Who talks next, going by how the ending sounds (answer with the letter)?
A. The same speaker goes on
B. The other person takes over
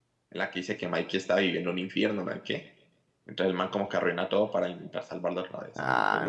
B